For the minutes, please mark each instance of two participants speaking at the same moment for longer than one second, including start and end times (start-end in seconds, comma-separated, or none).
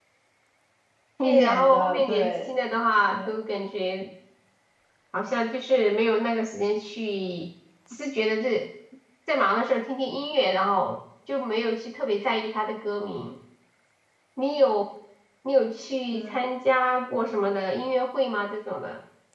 1.2-2.6